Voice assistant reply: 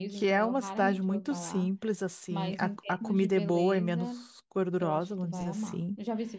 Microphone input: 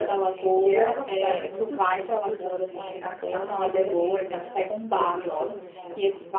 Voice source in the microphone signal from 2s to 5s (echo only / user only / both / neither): both